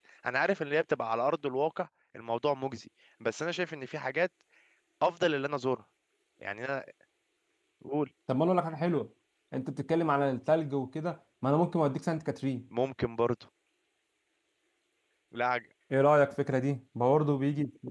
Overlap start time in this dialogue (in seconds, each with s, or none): none